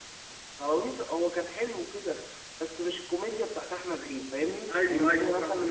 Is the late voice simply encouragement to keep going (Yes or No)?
No